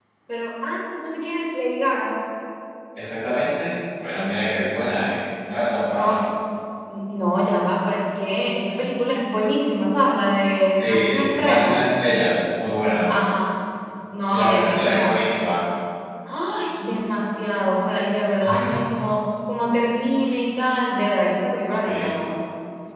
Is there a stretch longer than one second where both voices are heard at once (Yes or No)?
Yes